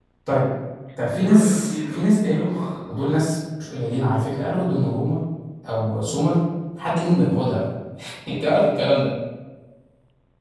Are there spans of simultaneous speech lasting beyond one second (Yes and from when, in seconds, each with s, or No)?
Yes, from 1.2 s